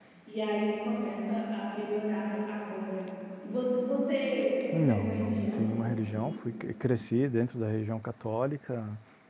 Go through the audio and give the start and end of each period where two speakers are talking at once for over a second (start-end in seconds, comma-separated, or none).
4.7-6.1